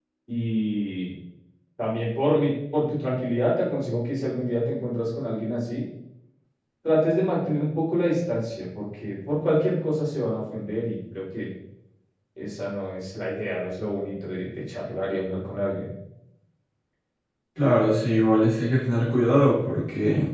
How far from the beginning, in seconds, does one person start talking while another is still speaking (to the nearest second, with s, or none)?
none